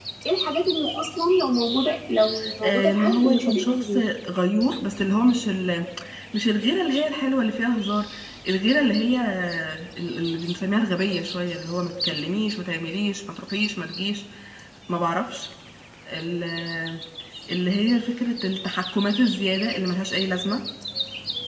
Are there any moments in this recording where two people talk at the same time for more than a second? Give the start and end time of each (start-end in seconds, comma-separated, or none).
2.6-4.0